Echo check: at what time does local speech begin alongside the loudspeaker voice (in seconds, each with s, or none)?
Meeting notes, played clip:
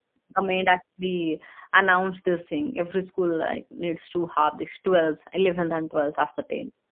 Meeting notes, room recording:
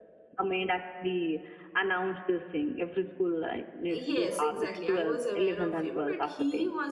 3.9 s